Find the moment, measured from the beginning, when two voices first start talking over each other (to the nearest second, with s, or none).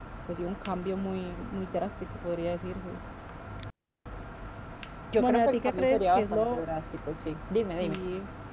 5 s